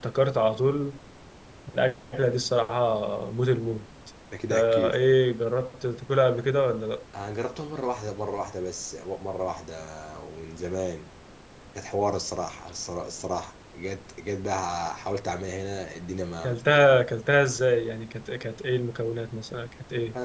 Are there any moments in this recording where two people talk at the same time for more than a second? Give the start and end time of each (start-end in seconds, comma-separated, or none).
none